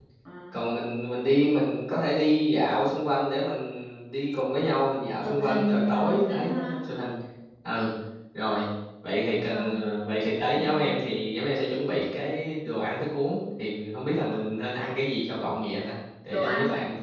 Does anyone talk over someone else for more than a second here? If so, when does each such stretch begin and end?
5.2-6.8

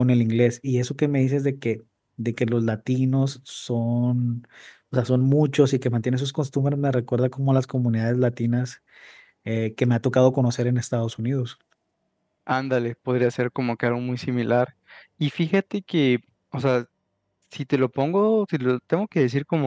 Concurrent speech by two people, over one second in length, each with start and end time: none

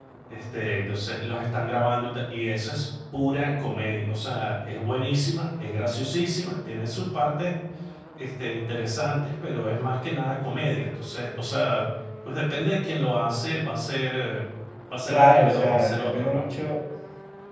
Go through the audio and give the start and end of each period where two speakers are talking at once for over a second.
15.1-16.5

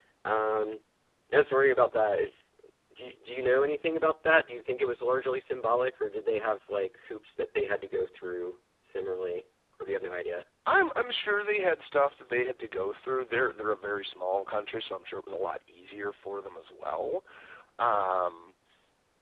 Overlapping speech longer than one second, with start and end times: none

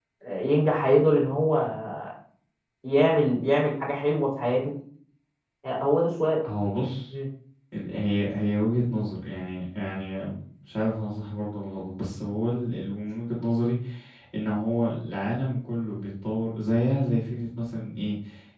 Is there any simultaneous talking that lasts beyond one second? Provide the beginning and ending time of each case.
none

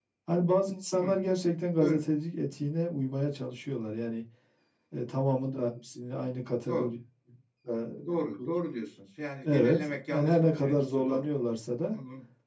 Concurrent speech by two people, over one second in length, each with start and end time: 9.4-11.3

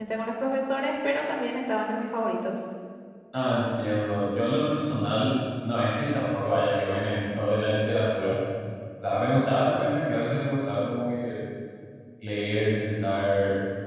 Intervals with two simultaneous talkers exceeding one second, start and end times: none

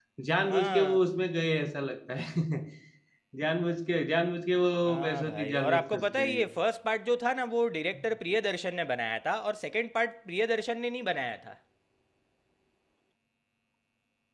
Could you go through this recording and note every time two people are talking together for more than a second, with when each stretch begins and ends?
4.9-6.4

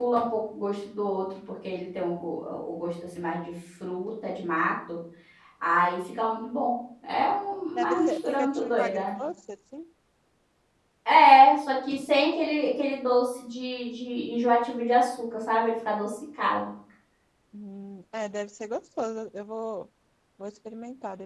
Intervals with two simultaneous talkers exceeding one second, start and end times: 7.8-9.1

